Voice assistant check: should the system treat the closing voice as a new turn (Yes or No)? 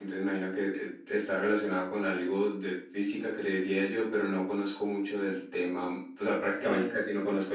No